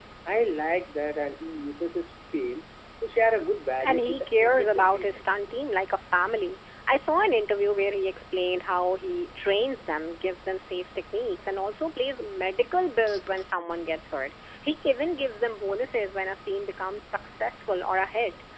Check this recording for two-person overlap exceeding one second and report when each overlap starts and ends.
3.8-5.2

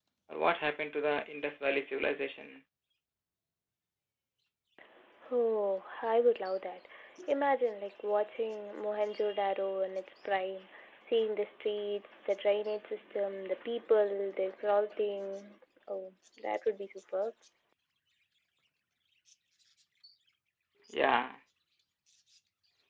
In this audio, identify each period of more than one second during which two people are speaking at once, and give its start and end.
none

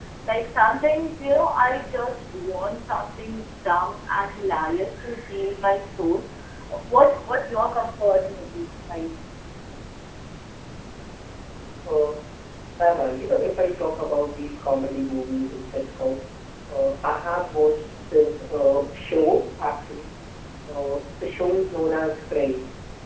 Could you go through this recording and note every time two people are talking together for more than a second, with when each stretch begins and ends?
none

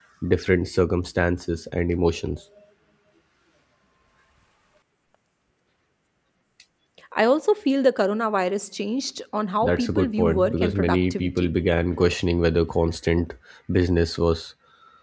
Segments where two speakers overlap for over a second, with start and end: 9.6-11.5

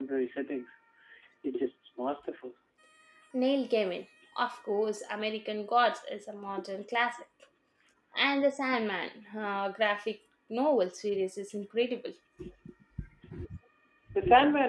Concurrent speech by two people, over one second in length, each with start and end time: none

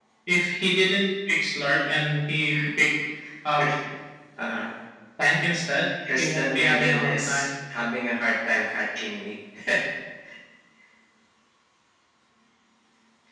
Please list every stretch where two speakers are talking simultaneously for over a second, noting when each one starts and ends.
6.2-7.5

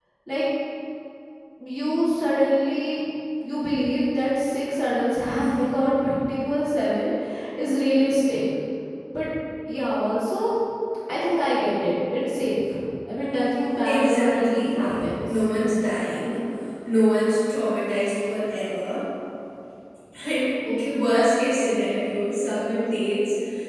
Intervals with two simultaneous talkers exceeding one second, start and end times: 13.8-15.3

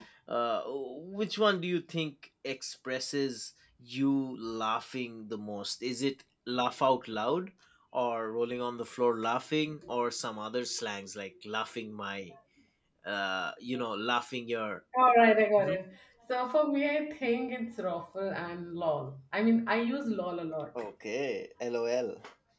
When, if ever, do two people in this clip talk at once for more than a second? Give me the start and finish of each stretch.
none

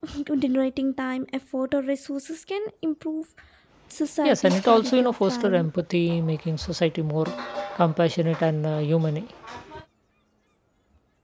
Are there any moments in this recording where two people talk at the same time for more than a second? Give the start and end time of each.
4.3-5.7

